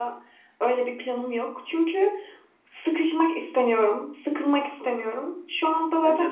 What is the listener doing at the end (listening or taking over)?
listening